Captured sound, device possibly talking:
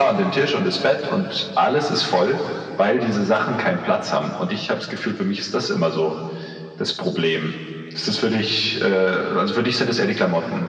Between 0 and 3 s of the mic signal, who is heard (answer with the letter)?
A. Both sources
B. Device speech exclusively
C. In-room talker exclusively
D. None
B